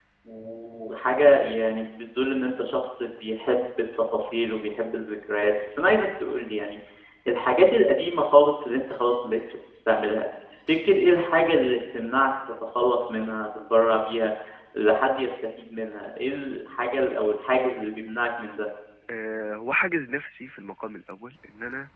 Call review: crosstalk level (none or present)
none